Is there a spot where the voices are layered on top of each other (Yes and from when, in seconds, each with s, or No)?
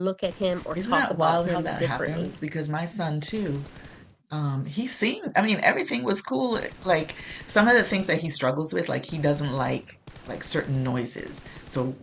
Yes, from 0.8 s